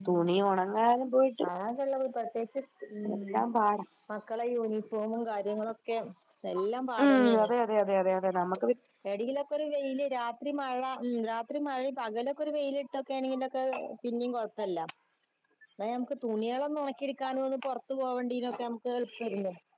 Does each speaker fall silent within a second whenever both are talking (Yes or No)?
Yes